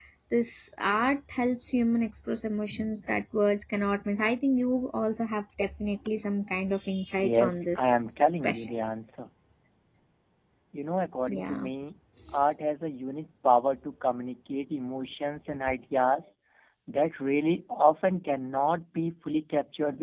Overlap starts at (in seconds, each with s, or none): 7.2 s